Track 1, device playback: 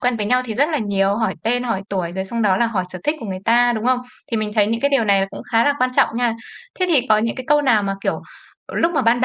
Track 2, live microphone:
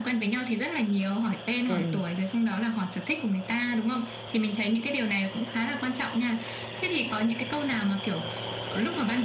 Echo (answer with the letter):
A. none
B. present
B